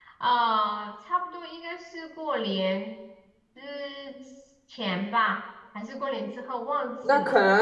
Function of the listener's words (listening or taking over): taking over